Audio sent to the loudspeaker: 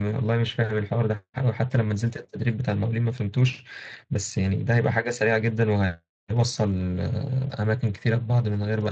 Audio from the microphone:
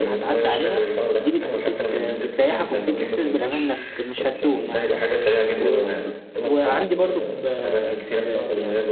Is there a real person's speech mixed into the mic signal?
Yes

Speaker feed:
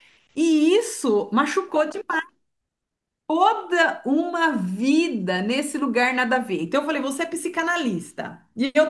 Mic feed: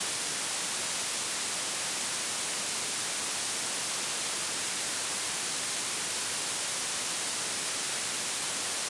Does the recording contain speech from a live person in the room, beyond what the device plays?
No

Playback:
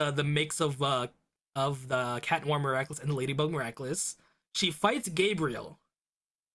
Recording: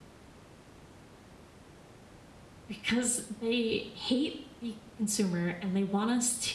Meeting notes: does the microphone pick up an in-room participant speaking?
Yes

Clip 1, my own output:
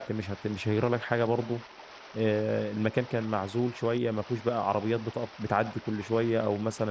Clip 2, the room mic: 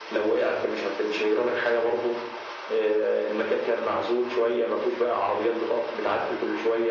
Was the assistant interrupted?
No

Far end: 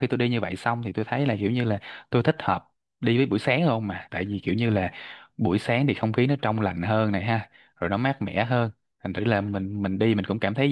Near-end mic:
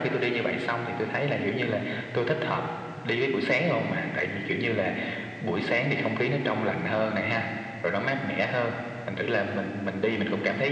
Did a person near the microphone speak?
No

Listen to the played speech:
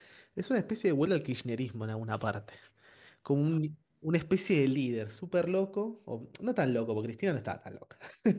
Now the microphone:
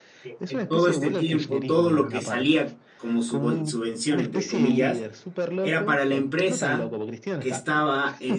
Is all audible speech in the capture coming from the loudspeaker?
No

